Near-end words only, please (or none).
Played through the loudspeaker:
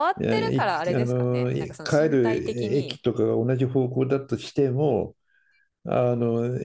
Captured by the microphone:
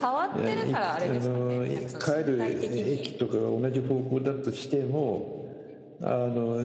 none